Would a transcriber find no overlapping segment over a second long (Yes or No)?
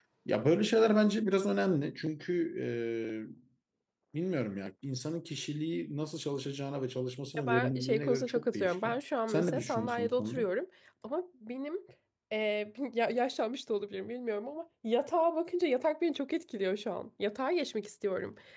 No